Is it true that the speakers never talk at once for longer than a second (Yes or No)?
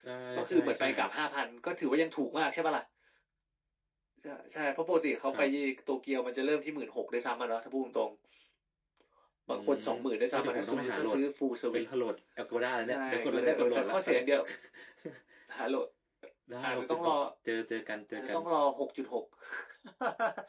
No